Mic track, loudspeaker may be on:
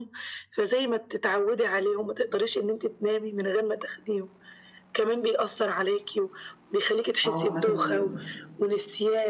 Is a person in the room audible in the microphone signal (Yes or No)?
Yes